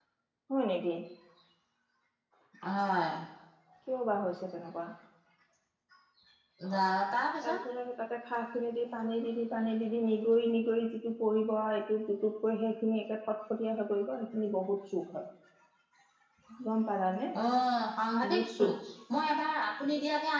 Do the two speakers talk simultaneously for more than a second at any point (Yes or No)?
No